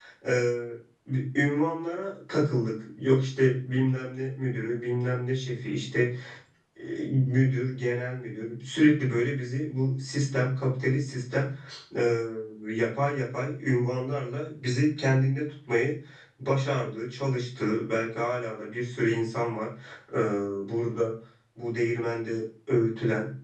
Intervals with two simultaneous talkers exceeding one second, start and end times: none

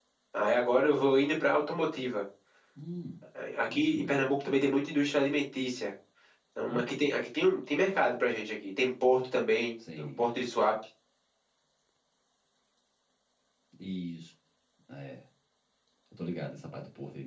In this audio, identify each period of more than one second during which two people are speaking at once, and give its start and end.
none

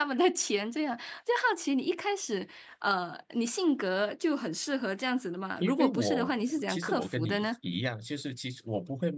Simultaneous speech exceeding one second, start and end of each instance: 5.6-7.5

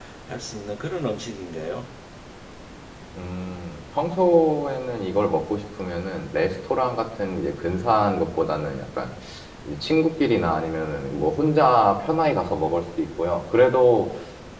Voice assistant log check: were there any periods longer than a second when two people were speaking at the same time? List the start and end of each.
none

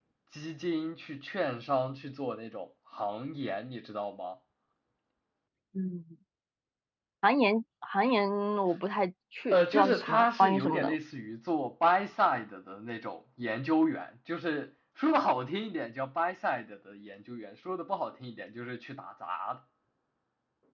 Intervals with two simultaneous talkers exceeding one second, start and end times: 9.5-10.9

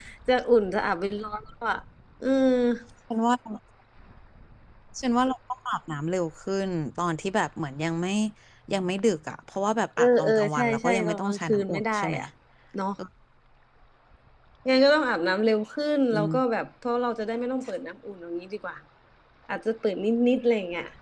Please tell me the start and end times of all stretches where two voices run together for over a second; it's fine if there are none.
10.0-12.2

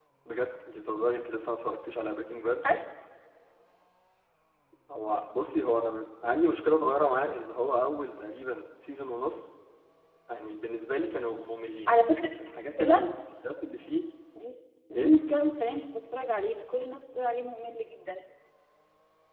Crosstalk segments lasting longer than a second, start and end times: none

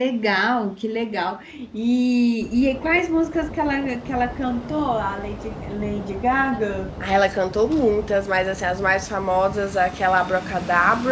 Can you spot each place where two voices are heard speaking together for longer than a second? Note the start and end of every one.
none

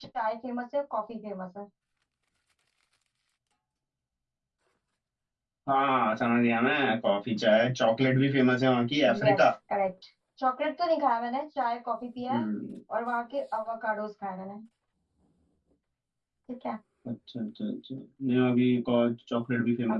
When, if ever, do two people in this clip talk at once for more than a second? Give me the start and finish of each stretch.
none

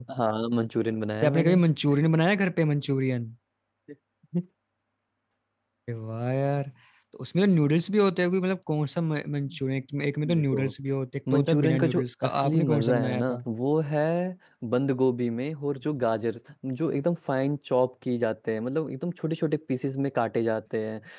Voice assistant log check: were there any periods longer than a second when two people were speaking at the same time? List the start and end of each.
11.3-13.4

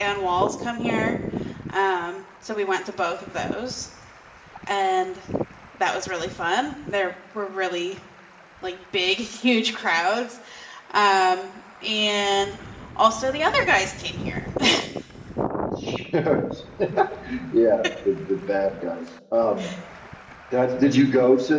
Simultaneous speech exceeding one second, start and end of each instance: none

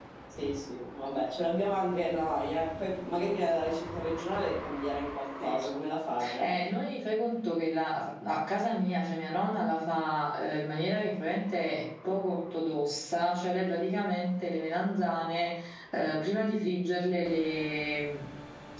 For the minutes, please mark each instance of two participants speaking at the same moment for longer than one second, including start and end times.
none

